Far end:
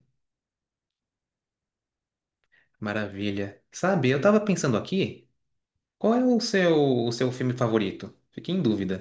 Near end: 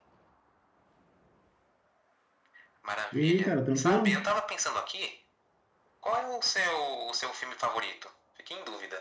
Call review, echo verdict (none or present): present